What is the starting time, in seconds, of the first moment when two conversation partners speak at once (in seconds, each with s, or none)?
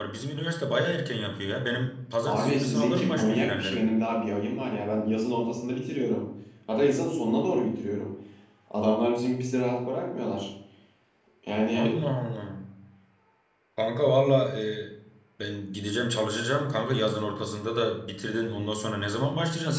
2.3 s